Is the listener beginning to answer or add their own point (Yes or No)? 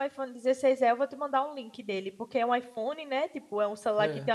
No